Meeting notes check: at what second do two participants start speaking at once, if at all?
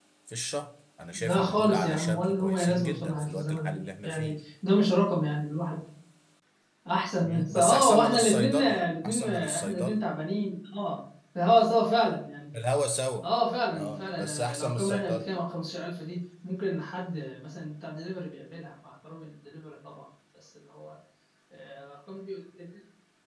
1.1 s

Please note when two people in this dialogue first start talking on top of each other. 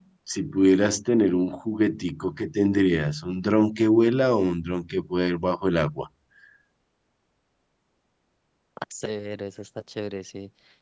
none

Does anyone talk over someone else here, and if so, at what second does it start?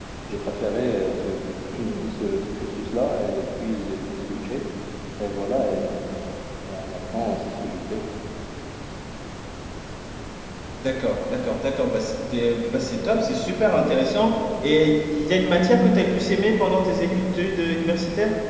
none

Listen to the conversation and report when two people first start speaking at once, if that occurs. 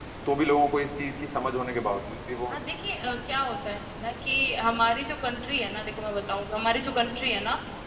none

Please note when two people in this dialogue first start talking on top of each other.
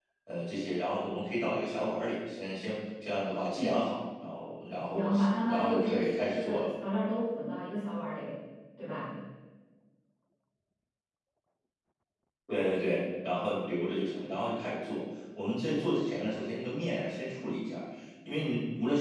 4.9 s

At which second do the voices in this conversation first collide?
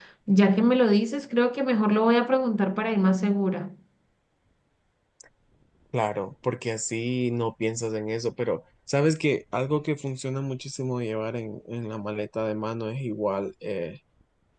none

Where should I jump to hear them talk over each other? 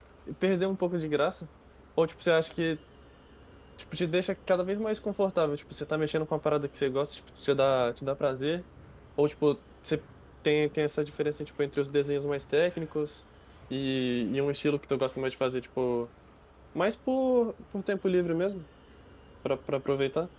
none

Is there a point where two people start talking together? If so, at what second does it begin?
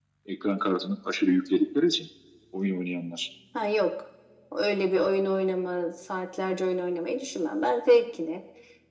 none

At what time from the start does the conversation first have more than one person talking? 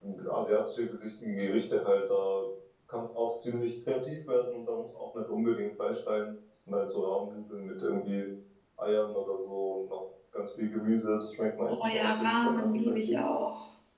11.7 s

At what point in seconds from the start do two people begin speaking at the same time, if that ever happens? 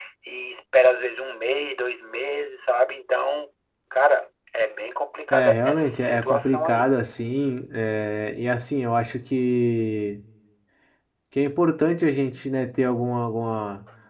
5.3 s

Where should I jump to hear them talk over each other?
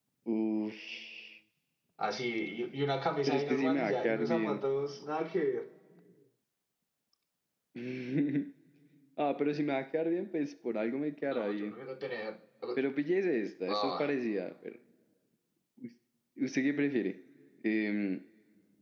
3.3 s

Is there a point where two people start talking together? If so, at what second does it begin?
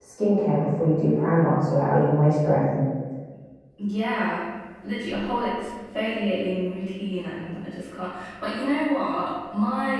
none

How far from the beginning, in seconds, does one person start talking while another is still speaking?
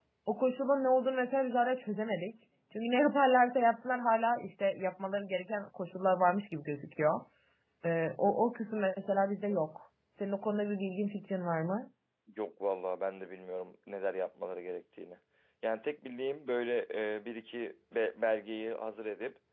none

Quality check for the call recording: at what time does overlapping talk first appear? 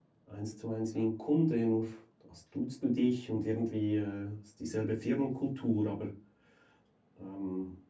none

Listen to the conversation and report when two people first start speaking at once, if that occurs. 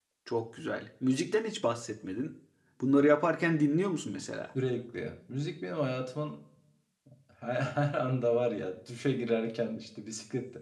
none

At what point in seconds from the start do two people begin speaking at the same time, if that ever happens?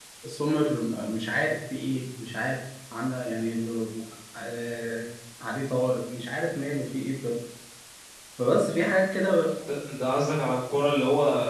none

